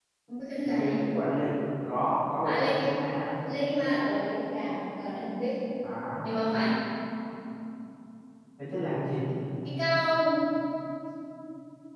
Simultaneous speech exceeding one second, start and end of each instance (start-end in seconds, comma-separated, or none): none